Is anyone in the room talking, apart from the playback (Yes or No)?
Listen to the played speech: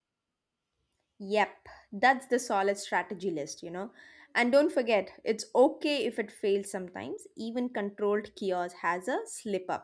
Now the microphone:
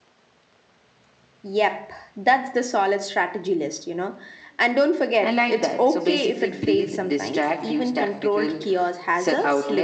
Yes